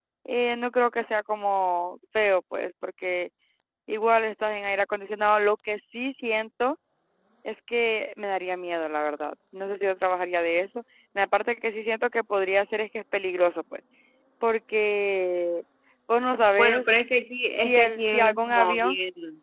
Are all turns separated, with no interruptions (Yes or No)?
No